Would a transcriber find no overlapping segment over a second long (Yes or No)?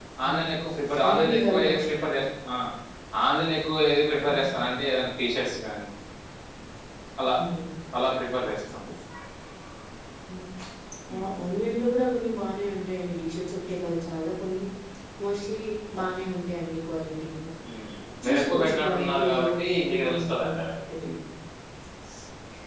No